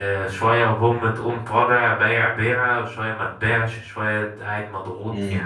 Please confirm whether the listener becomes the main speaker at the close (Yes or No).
No